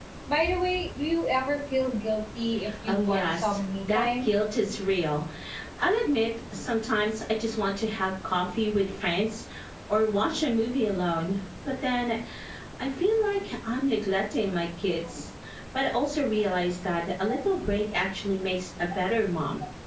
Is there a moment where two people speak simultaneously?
Yes, from 2.9 s

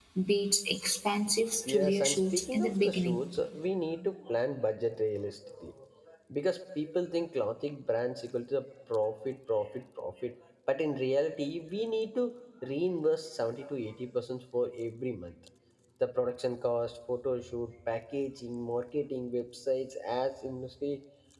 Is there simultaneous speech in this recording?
Yes, from 1.7 s

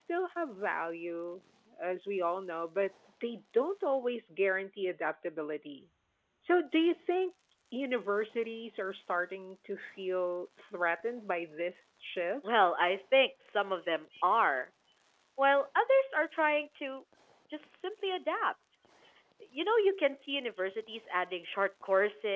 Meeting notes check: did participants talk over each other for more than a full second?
No

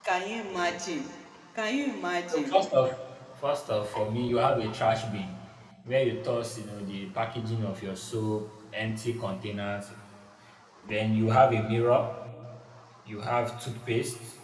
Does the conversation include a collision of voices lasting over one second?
No

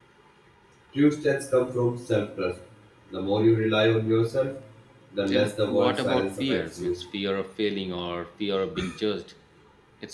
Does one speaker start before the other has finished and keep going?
Yes, from 5.3 s

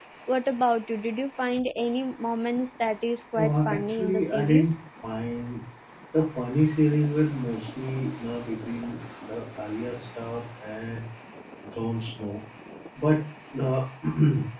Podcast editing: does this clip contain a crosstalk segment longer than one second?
Yes, from 3.4 s

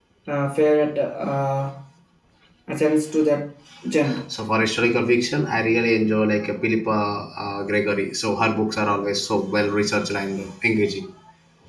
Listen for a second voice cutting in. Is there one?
No

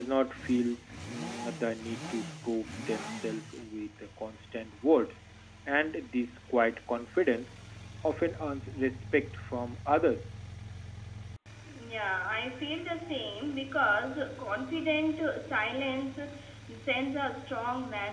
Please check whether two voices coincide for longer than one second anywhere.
No

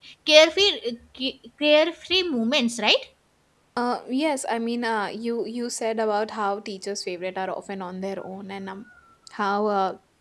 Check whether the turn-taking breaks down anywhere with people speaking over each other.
No

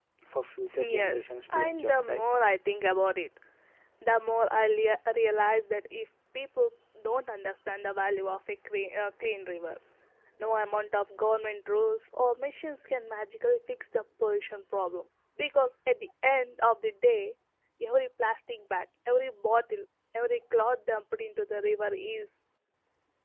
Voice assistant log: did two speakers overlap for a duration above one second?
Yes, from 0.7 s

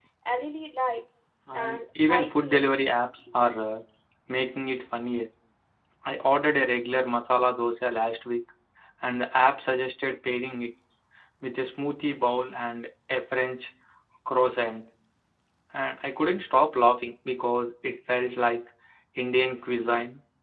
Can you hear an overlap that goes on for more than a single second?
Yes, from 1.5 s

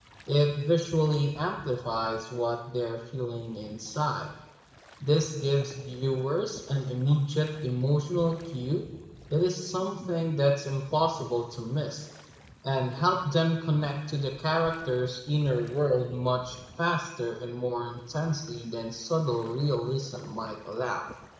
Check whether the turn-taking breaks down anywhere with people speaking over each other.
No

